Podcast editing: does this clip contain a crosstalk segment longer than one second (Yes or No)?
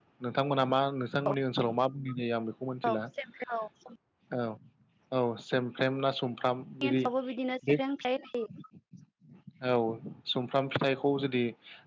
No